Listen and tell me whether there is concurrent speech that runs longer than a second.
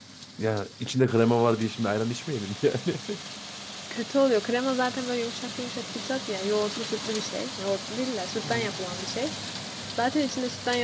No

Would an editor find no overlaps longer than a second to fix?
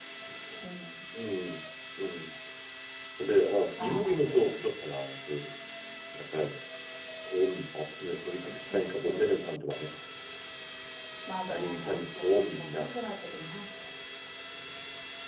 No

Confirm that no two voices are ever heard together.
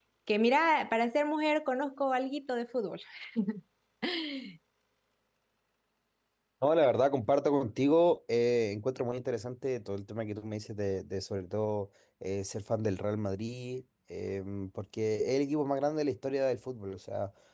Yes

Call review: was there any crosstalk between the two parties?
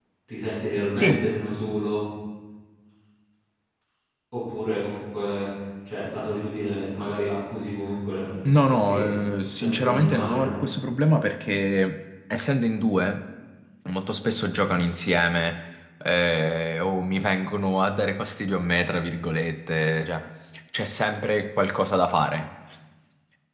Yes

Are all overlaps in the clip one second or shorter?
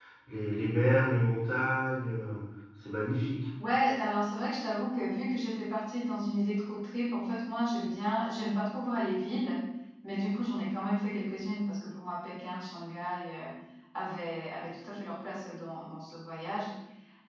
Yes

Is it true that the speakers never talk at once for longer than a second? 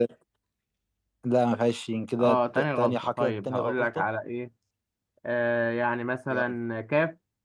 No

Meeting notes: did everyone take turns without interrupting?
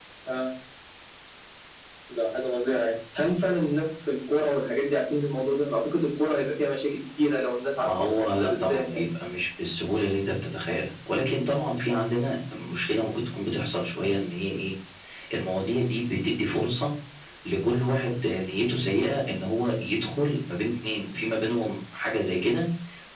No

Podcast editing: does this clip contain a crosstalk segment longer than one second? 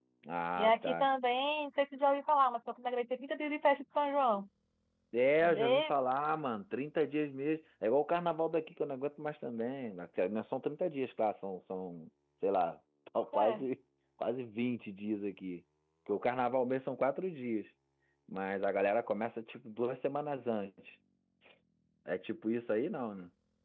No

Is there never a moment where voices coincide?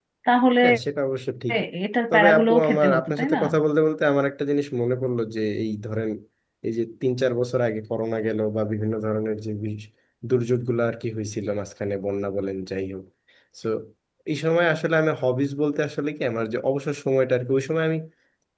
No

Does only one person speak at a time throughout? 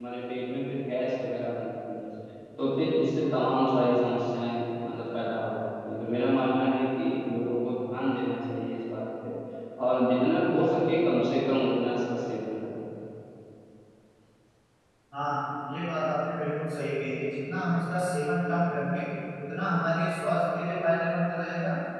Yes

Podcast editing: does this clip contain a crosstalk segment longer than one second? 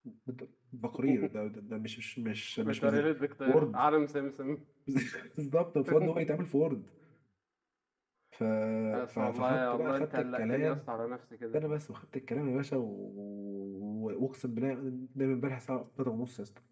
Yes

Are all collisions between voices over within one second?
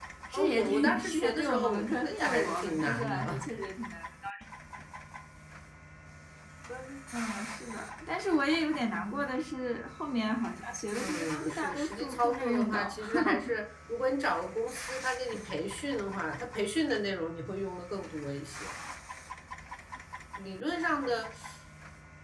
No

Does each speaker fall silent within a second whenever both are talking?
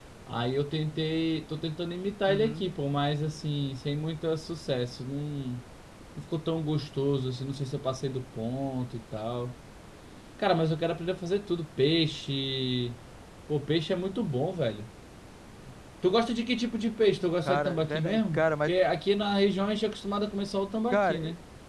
No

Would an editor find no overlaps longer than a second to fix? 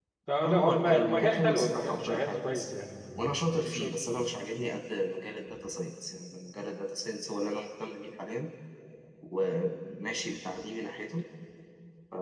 No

